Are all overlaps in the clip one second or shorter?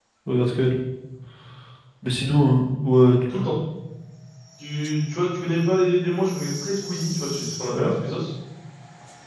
Yes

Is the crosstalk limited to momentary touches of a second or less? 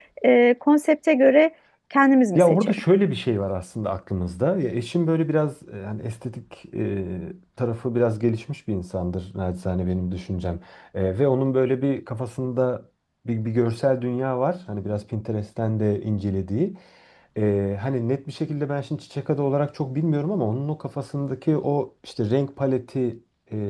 Yes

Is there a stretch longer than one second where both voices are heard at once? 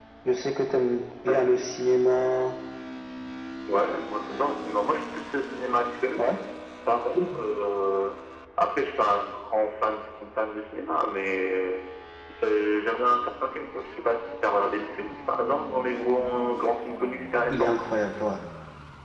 No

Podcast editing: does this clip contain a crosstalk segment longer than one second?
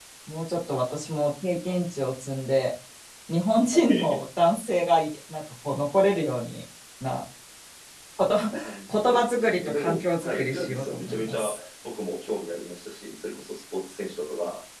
Yes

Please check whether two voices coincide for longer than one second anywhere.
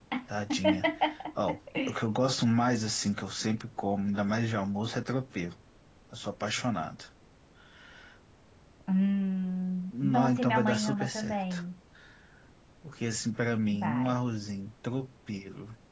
Yes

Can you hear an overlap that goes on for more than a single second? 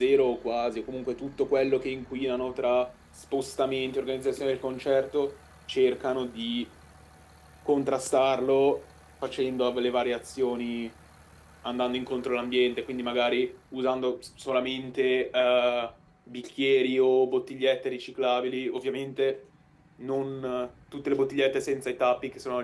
No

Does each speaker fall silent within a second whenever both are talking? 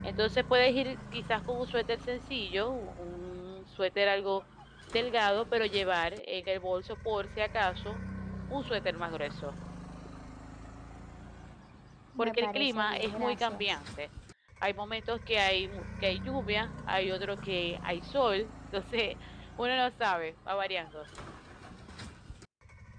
No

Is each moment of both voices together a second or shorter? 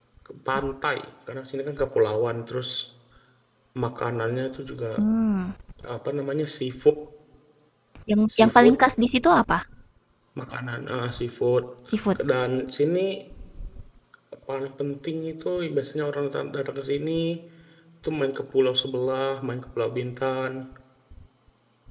Yes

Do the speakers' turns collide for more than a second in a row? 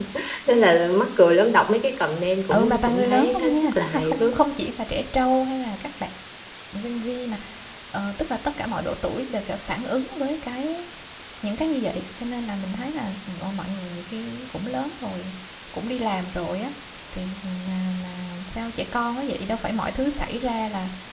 Yes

